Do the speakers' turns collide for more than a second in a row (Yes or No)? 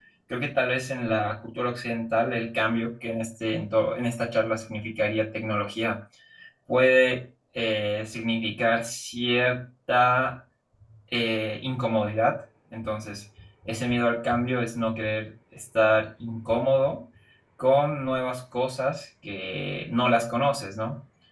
No